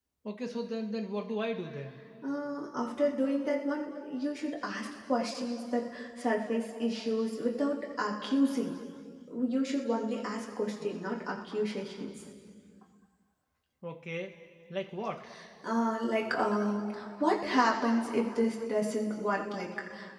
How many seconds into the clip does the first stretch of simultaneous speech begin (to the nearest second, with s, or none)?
none